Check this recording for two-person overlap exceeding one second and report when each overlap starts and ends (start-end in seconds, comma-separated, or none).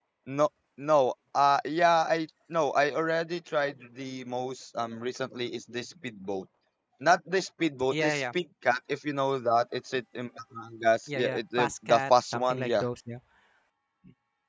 11.1-12.8